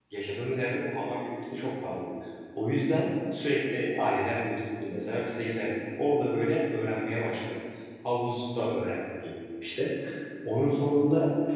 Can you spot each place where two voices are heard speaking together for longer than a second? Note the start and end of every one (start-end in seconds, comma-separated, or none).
none